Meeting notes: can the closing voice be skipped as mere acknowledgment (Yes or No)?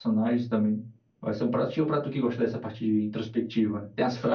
No